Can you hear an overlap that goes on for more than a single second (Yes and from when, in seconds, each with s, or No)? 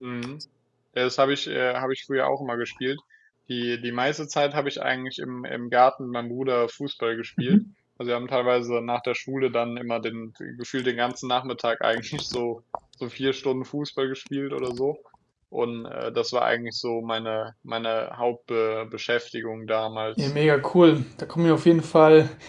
No